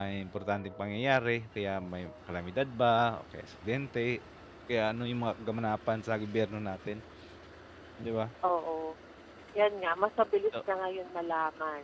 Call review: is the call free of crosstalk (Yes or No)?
Yes